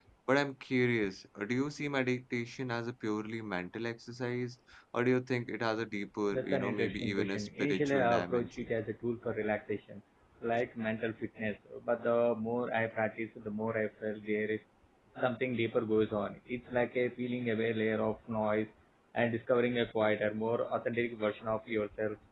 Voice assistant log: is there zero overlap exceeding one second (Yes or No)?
No